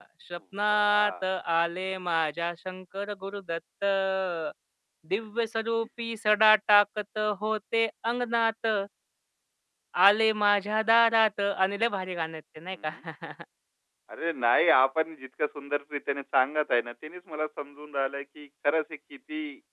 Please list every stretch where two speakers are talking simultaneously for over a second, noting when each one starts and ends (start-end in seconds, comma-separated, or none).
none